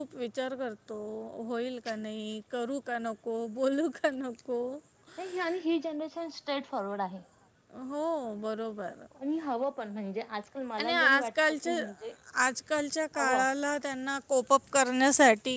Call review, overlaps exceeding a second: none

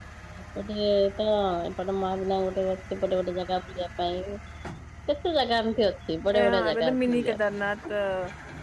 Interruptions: present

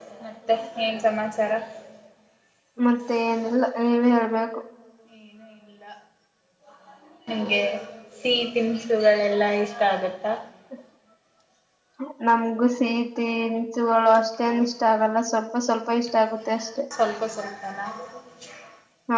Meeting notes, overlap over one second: none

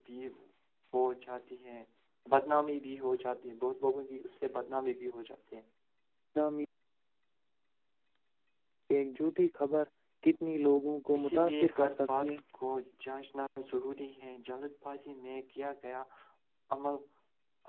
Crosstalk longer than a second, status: present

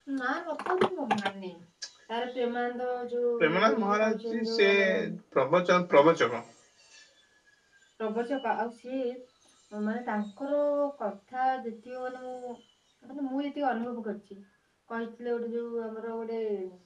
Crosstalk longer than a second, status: present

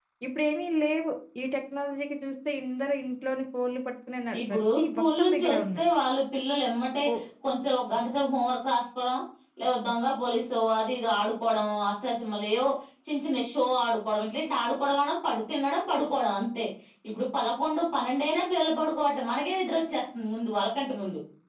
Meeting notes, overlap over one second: present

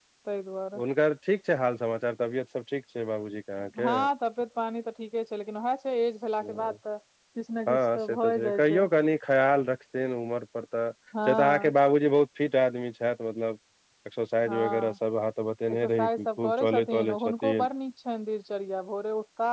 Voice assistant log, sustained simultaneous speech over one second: present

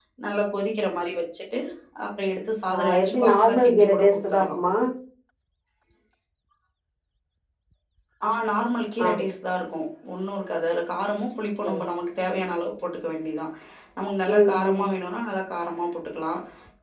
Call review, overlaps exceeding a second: present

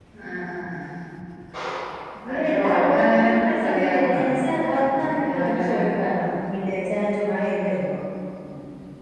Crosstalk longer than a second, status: present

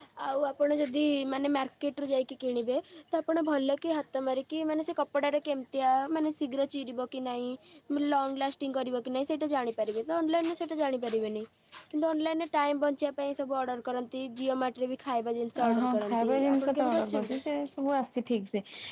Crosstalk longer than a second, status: present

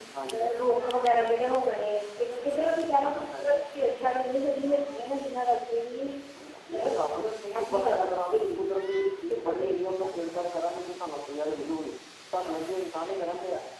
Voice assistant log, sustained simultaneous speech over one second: present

